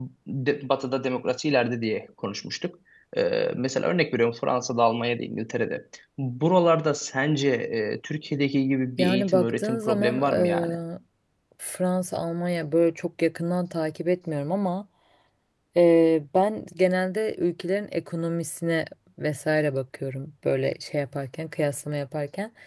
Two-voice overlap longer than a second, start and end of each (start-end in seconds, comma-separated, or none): 9.0-10.7